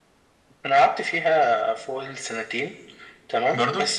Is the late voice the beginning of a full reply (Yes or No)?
No